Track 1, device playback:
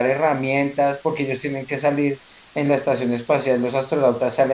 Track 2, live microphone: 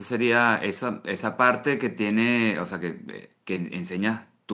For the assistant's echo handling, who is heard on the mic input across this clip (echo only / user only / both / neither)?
user only